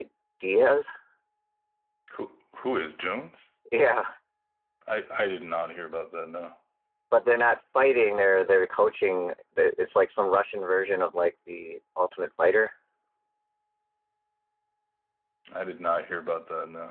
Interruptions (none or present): none